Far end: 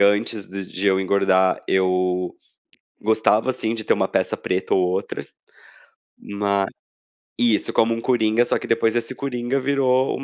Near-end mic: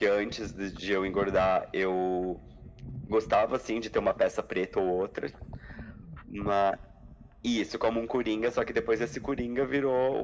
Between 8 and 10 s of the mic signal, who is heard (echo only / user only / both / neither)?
echo only